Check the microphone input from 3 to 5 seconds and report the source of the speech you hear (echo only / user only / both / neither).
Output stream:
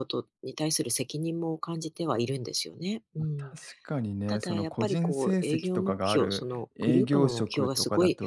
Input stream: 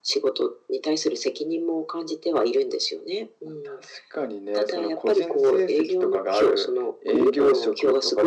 echo only